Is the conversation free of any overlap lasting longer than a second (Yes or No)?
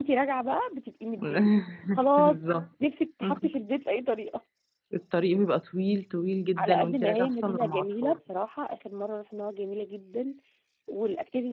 No